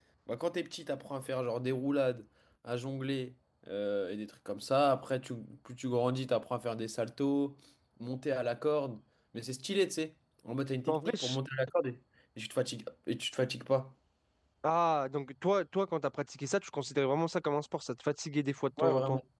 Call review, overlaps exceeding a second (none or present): none